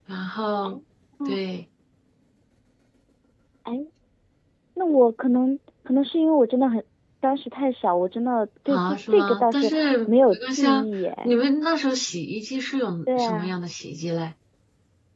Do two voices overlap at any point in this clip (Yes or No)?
Yes